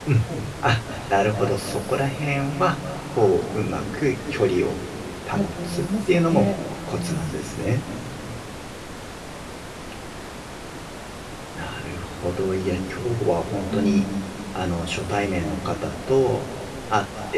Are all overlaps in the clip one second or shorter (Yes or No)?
No